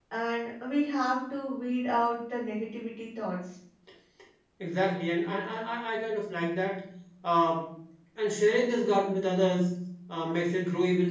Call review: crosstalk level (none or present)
none